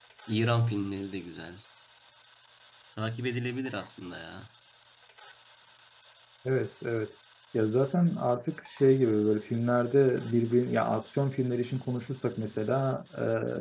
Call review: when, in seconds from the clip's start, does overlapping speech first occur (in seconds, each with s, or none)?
none